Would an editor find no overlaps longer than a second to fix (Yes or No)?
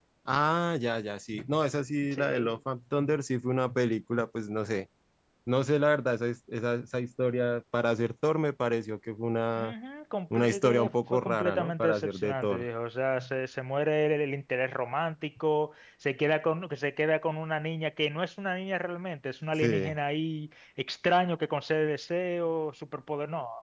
No